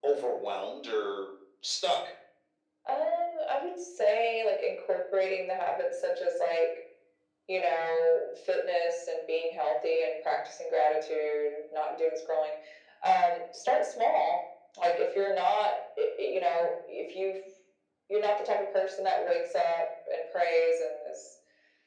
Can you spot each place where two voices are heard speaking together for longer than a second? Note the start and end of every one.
none

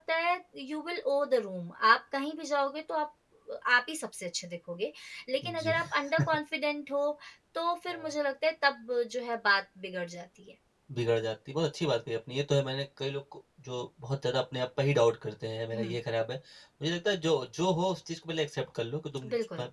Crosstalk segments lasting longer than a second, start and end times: none

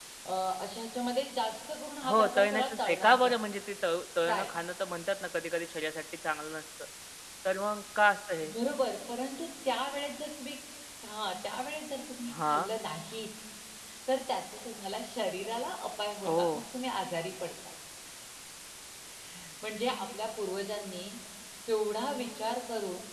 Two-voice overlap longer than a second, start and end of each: 2.1-3.4

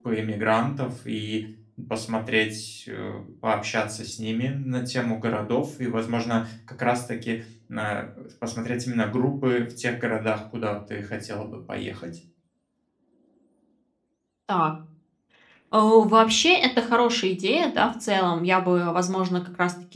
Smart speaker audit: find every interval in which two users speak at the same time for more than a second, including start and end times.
none

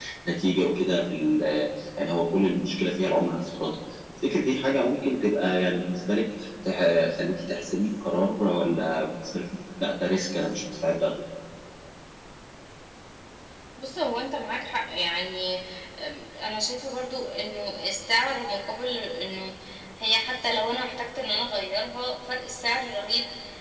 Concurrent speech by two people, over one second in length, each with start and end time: none

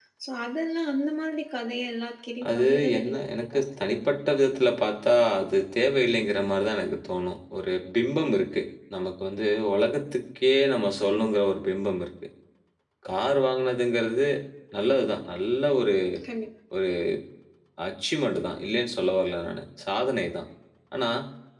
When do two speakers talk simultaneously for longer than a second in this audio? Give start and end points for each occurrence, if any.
2.5-4.0

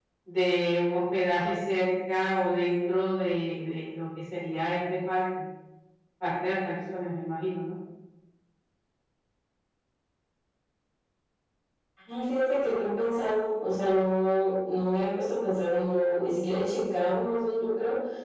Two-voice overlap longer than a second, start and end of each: none

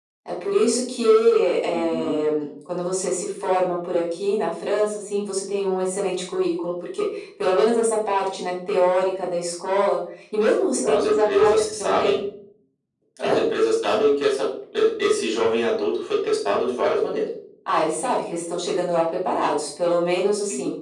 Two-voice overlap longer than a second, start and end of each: 10.9-12.2

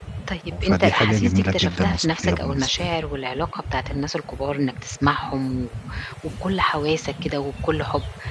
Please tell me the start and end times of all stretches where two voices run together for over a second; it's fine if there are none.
0.6-3.0

